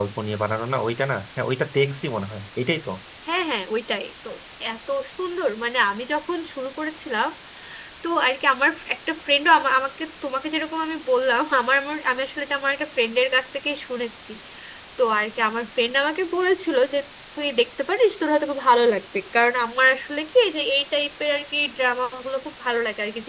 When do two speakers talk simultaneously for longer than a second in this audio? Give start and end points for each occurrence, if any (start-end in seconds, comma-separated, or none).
none